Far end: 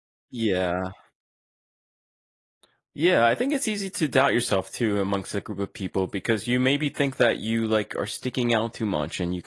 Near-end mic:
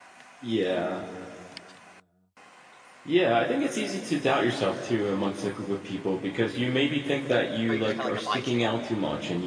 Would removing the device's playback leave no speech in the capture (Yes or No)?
No